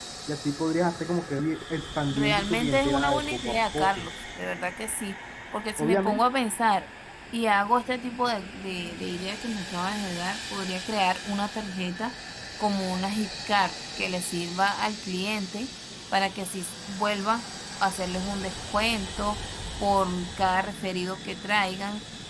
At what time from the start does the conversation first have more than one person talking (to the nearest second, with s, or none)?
2 s